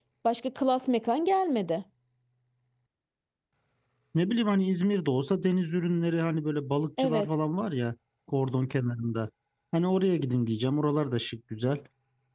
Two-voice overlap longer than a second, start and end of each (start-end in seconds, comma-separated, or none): none